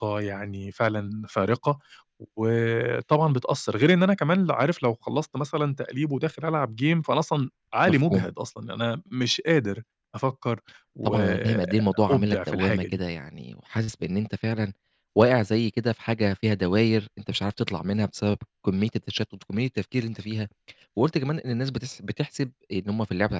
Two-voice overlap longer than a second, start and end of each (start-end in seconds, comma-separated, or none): 11.0-13.0